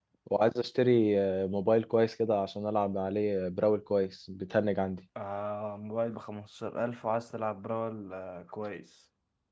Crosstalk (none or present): none